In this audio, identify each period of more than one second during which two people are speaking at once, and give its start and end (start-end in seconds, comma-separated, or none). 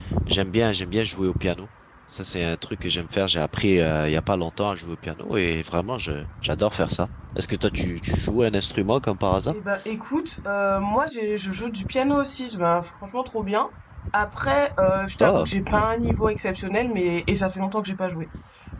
none